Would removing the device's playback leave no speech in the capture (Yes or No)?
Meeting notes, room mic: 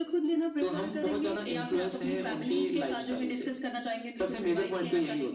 No